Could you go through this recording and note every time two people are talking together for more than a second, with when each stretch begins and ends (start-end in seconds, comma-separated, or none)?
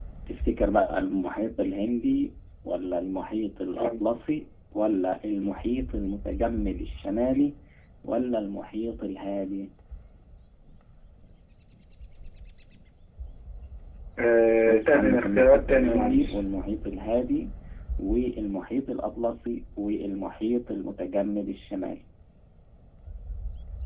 14.6-16.4